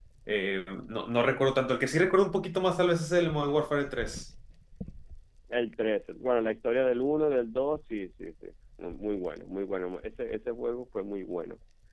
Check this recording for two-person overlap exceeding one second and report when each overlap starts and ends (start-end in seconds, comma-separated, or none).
none